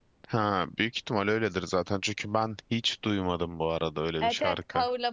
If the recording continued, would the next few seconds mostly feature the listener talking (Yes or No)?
Yes